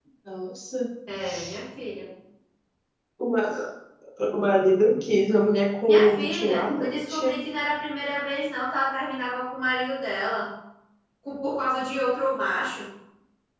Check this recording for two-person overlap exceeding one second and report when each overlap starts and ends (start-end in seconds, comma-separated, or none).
5.9-7.4